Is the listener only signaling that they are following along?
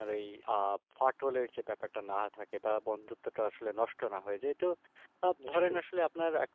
Yes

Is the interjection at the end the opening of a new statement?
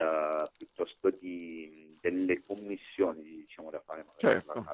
No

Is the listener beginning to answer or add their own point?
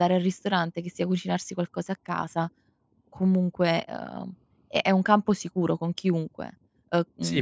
Yes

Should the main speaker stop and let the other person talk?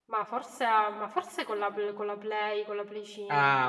Yes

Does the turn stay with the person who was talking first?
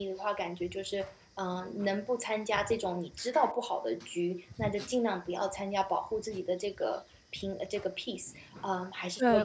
No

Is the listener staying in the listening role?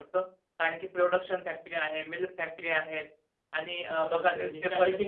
No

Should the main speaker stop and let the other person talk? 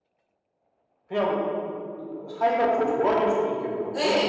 Yes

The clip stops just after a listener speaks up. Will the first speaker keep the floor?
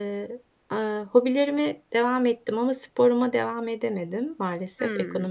Yes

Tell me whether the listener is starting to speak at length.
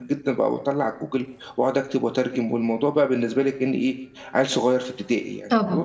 Yes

